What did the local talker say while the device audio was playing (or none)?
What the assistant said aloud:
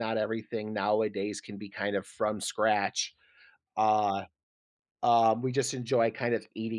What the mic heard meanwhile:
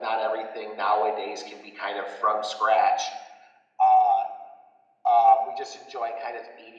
none